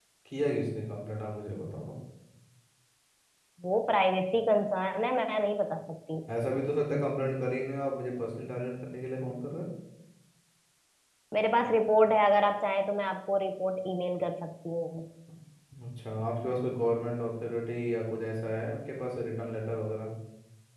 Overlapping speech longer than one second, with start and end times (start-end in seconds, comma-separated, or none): none